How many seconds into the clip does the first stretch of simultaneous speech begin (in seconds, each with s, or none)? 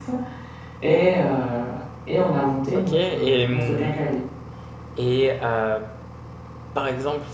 2.7 s